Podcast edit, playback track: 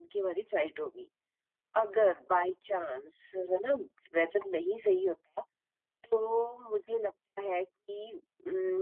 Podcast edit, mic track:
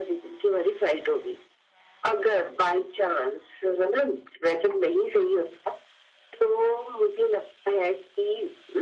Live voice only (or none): none